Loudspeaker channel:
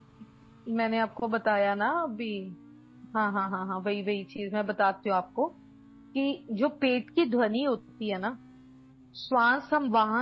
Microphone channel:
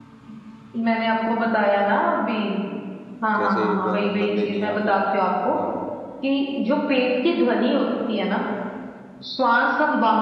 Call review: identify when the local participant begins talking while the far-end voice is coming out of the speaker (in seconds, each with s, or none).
3.4 s